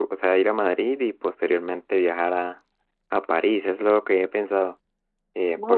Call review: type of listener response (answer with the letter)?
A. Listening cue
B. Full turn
A